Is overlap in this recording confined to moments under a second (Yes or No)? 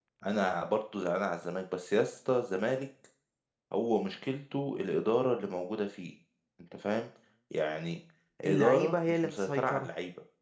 No